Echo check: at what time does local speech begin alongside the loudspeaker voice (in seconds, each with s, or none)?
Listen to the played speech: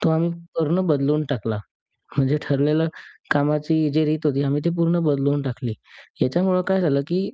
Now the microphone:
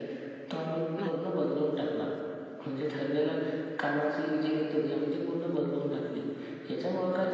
1.0 s